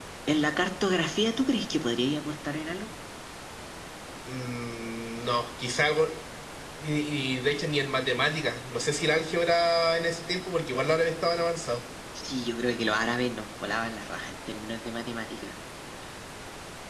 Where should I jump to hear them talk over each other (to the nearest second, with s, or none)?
none